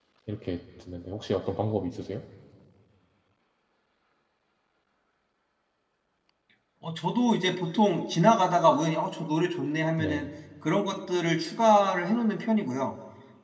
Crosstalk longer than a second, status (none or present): none